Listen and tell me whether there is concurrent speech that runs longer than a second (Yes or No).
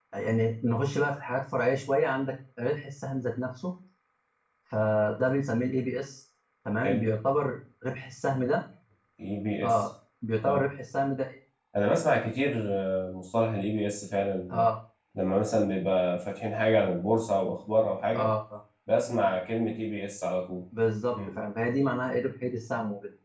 No